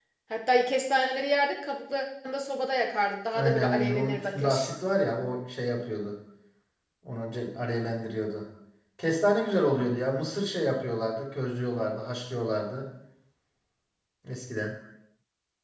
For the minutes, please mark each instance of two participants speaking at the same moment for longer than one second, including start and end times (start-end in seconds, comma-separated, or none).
3.3-4.7